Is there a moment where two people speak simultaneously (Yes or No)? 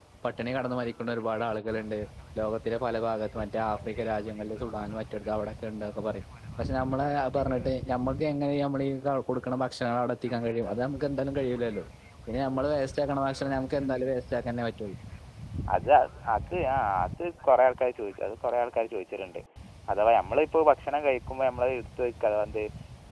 No